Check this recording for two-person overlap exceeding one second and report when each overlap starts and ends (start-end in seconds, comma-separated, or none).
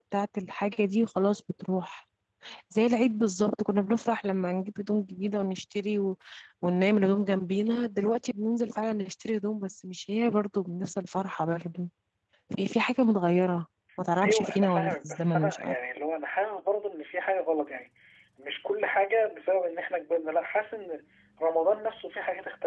14.2-15.8